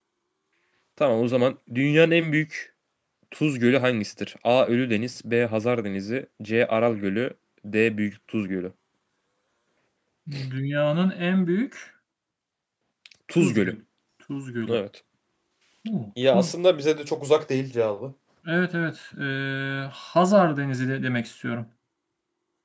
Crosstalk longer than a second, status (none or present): none